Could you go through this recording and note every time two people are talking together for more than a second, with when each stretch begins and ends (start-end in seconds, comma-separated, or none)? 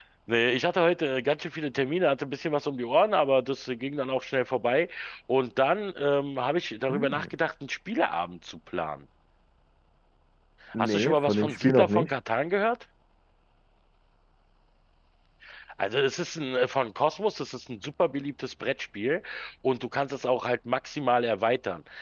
10.8-12.1